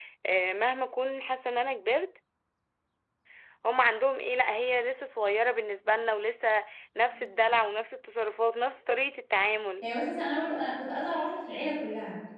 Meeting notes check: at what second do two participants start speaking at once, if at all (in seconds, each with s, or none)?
none